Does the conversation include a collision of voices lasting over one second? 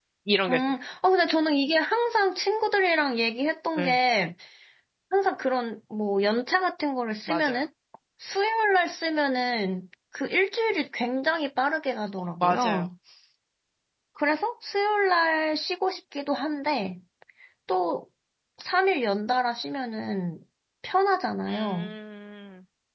No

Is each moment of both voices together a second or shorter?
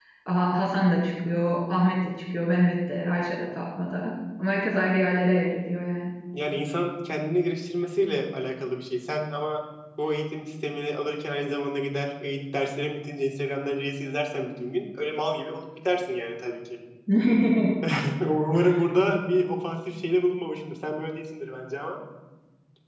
Yes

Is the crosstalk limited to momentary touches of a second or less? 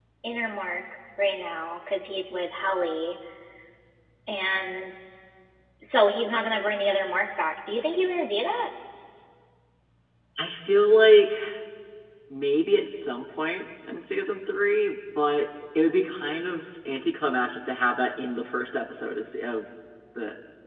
Yes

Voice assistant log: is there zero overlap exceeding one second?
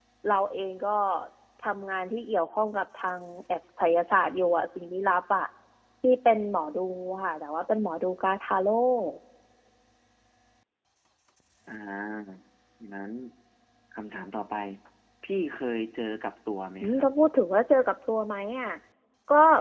Yes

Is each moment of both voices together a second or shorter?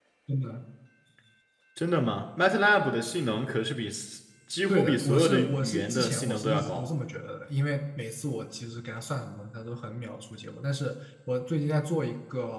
No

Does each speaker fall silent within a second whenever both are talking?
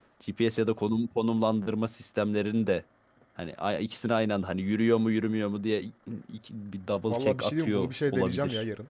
No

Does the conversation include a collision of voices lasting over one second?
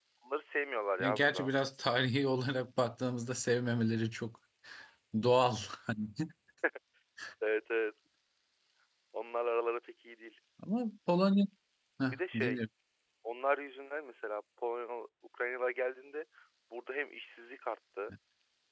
No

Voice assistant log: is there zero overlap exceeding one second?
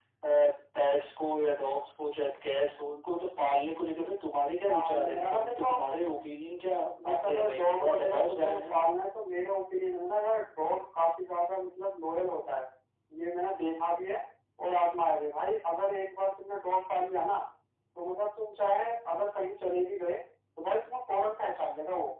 No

